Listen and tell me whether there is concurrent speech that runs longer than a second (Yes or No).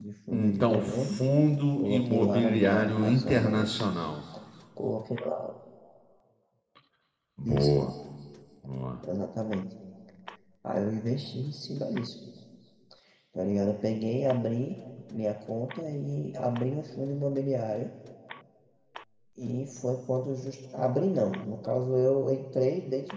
Yes